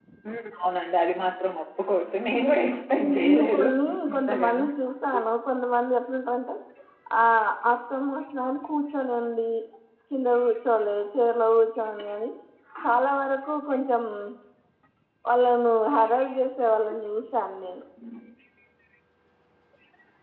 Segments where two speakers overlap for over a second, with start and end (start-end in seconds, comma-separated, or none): 3.0-4.5